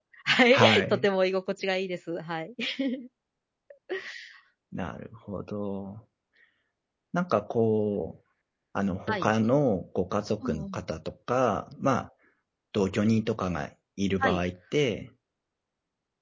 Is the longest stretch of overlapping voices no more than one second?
Yes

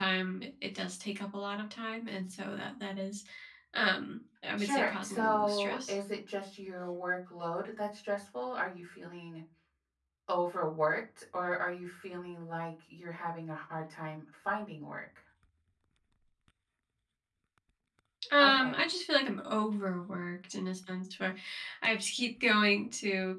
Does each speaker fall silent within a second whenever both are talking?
No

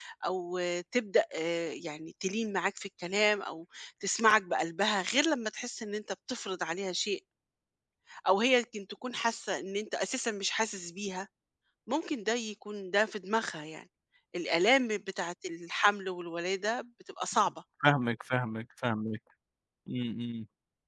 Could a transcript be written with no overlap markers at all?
Yes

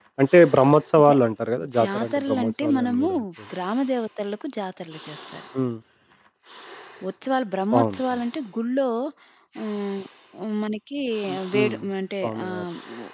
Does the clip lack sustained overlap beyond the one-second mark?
No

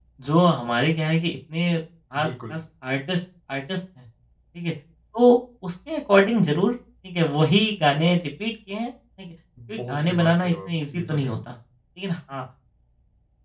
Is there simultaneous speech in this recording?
Yes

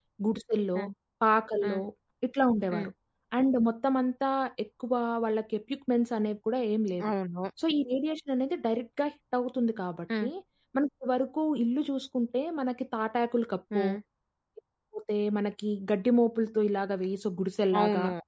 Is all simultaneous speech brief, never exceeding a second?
Yes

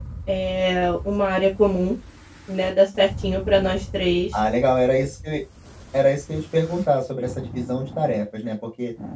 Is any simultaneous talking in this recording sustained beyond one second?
No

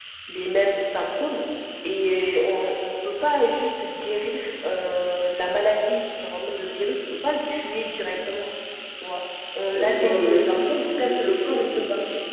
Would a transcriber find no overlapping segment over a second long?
No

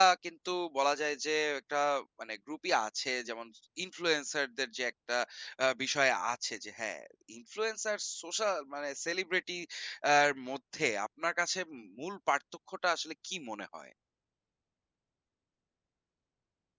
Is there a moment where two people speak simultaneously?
No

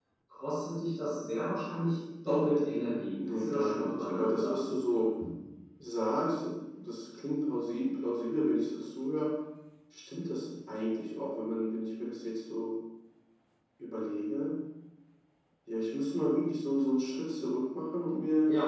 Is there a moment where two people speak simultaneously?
Yes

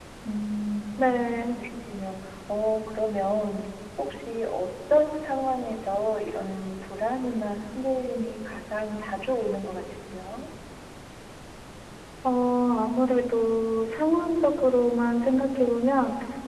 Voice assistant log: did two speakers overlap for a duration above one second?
No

